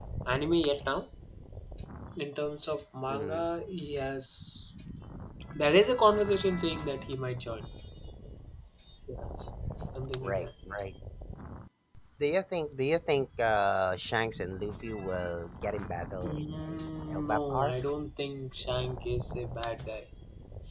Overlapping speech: Yes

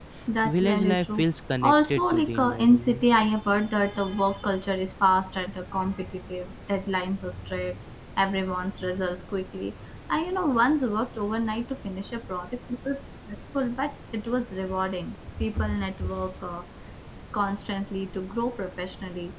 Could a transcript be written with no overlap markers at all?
No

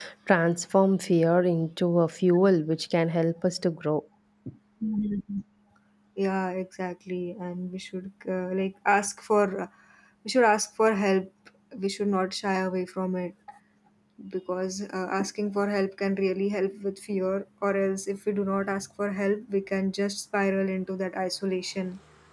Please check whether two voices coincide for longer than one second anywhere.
No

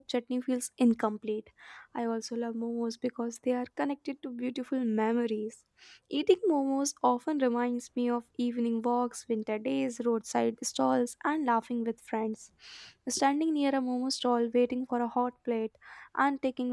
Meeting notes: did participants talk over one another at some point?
No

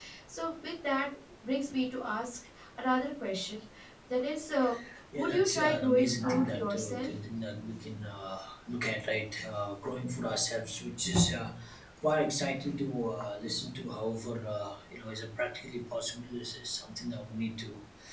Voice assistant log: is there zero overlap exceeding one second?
No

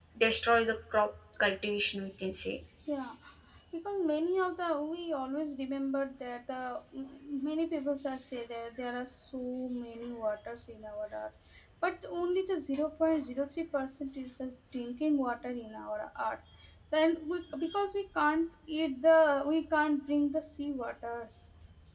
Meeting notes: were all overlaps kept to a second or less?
Yes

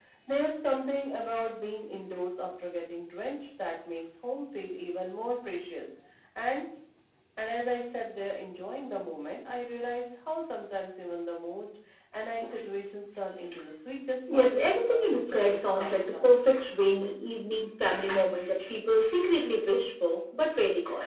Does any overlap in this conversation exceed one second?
Yes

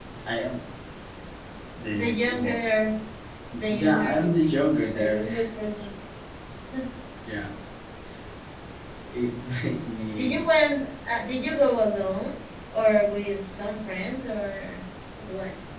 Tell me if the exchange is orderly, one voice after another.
No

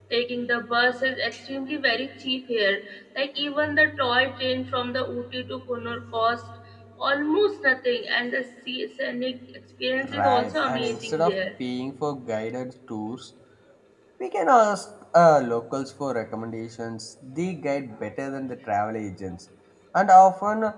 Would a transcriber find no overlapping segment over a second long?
No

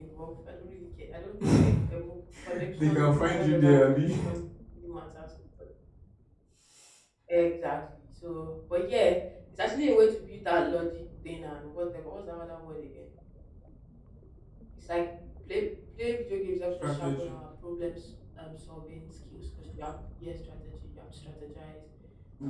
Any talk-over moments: Yes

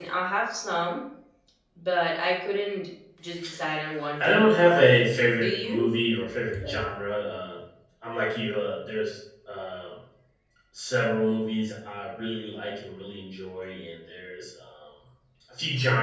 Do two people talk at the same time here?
Yes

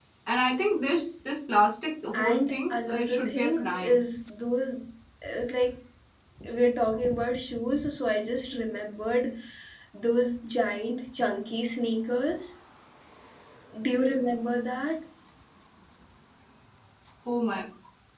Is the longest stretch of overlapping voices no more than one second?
No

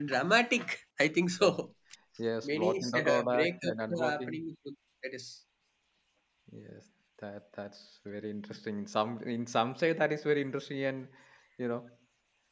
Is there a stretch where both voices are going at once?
Yes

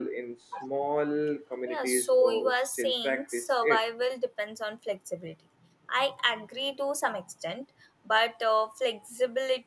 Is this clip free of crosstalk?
No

